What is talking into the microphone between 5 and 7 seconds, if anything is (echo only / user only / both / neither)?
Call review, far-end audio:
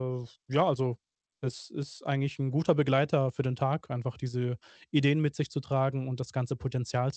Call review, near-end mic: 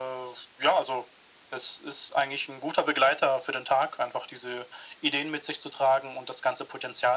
echo only